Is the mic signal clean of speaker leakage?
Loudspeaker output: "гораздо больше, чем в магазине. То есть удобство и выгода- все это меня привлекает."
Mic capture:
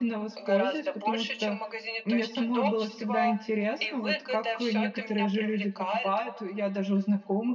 No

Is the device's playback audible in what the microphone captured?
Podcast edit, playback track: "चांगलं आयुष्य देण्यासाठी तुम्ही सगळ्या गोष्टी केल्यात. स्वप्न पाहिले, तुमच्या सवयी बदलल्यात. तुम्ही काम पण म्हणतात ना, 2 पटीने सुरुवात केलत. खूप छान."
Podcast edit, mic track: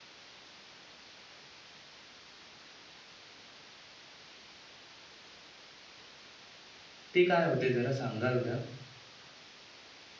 No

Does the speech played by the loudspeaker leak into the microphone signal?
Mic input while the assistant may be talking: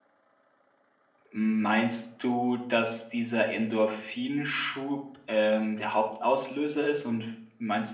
No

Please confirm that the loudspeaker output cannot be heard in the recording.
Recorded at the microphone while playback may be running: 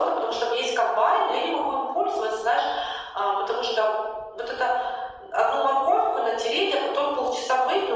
No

